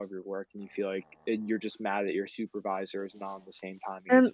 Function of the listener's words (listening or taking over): taking over